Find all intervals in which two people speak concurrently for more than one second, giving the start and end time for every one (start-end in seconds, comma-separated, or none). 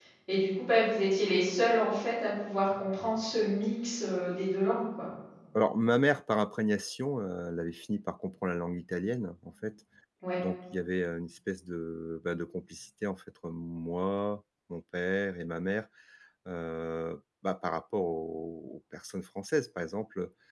none